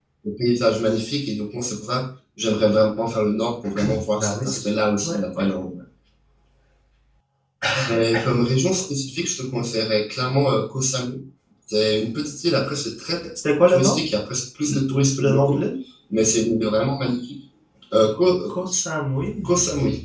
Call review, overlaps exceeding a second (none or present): present